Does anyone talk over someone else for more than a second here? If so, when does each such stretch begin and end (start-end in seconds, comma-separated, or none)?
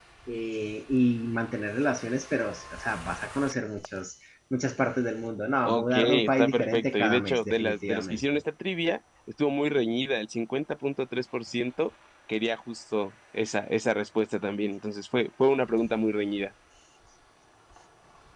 5.6-8.2